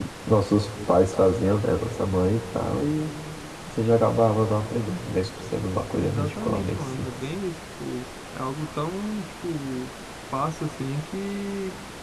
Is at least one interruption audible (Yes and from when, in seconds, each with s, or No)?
Yes, from 6.0 s